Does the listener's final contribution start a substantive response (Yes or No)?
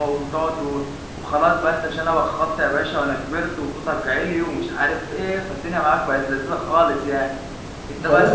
Yes